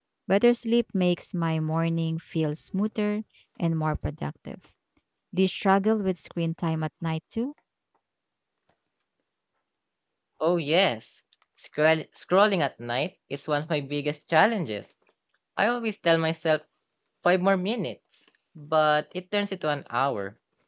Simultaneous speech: No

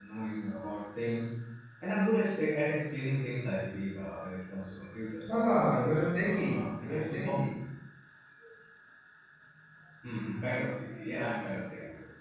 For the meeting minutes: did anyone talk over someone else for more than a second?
Yes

